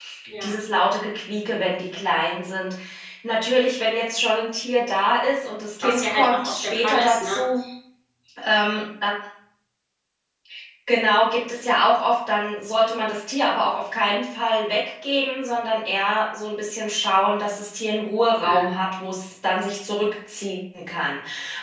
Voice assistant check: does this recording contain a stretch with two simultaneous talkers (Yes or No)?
Yes